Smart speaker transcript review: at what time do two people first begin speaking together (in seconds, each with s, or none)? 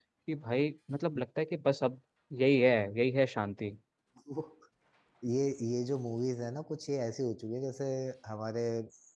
none